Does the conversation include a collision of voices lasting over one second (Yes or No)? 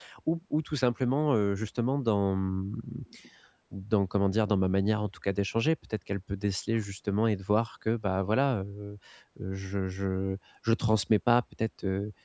No